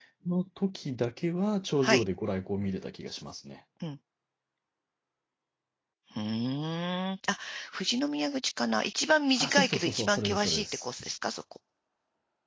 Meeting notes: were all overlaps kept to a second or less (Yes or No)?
No